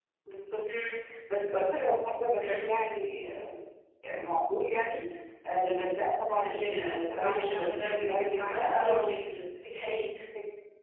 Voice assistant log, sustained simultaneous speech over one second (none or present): present